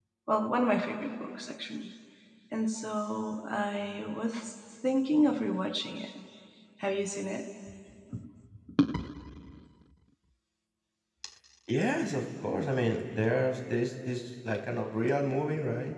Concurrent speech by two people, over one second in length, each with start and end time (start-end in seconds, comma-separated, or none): none